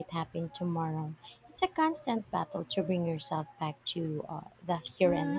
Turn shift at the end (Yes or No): Yes